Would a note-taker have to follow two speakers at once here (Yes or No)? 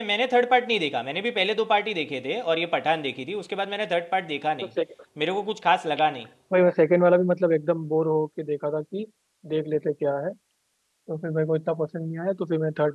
No